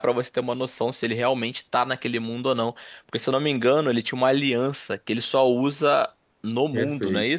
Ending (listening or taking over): taking over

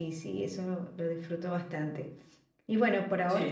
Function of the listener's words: taking over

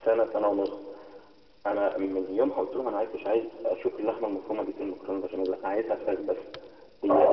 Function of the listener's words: taking over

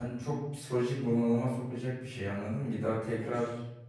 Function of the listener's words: listening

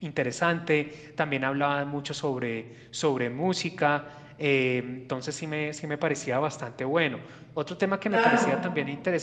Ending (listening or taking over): listening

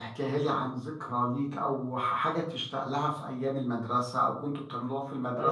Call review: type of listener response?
taking over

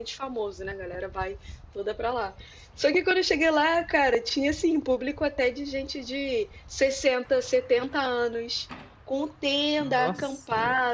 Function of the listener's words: listening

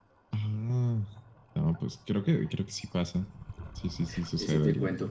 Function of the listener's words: taking over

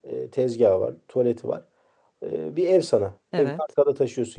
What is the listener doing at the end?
listening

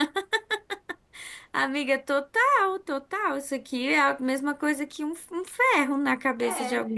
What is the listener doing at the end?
taking over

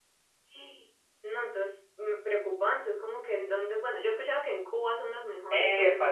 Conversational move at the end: taking over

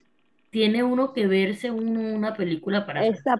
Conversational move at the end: taking over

